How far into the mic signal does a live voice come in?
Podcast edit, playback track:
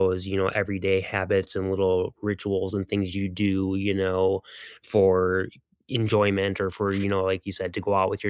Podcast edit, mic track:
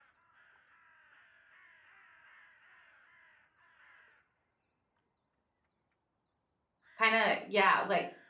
7.0 s

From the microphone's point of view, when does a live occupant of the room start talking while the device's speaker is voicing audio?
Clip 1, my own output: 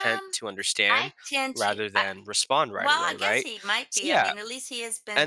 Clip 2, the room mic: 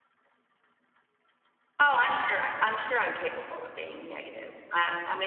1.8 s

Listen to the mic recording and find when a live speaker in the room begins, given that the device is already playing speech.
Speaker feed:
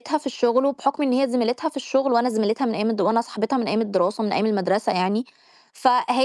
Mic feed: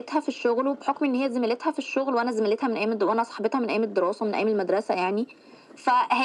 none

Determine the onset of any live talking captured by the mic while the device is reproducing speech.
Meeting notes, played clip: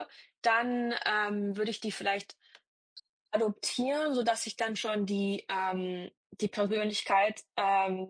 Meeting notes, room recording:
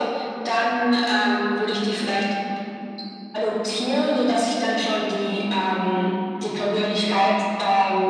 none

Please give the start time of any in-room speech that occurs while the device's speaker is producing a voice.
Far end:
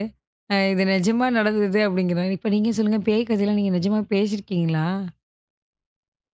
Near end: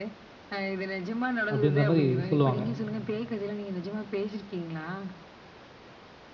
1.5 s

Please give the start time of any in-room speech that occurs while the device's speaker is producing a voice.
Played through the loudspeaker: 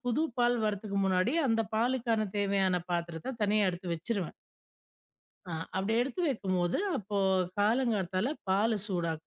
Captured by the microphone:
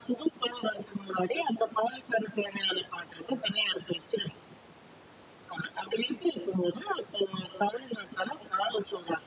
none

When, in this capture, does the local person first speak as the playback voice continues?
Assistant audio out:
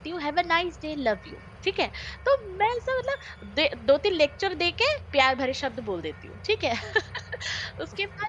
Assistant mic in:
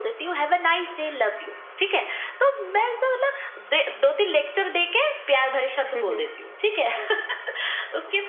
6.0 s

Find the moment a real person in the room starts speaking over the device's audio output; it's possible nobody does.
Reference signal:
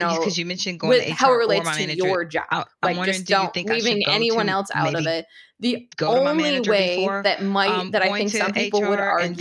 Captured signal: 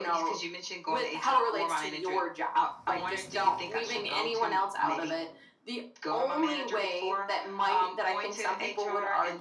none

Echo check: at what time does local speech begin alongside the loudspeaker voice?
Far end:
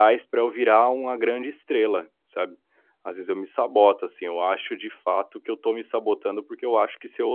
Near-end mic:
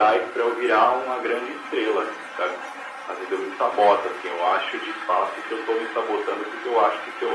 none

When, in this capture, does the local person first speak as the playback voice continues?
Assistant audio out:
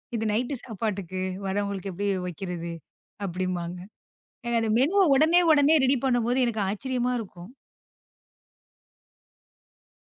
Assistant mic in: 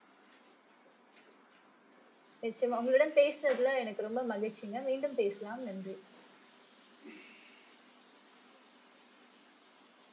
2.4 s

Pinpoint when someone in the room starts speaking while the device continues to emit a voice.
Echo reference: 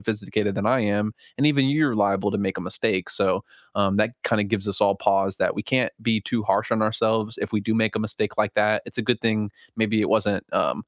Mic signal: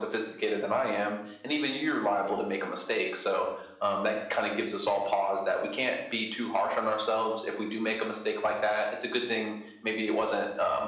none

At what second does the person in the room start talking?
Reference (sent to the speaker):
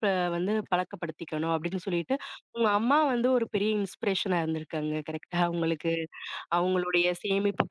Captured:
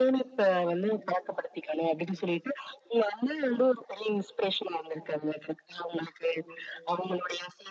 none

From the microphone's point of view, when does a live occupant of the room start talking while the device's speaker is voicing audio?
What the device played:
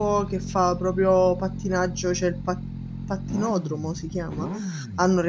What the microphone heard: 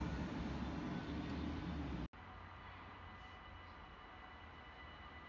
none

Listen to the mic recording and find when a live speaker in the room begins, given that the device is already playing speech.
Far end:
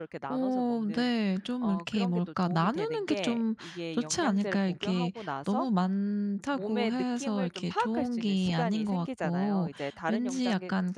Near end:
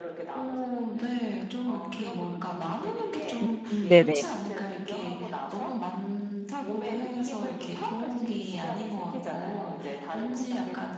3.5 s

